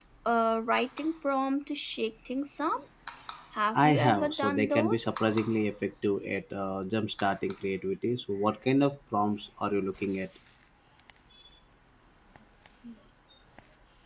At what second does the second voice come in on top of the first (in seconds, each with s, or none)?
3.8 s